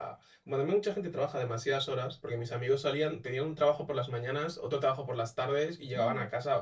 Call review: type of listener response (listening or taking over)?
listening